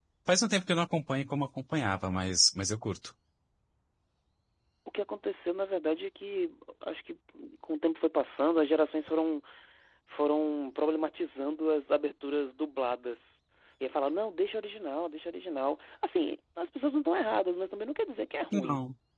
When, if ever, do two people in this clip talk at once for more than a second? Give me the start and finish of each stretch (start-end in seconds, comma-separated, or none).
none